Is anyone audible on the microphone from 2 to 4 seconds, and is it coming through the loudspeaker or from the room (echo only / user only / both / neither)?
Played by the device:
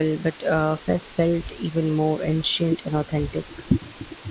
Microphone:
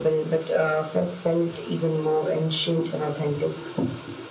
echo only